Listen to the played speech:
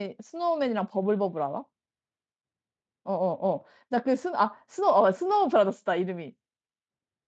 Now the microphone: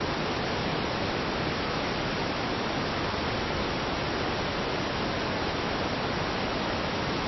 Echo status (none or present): none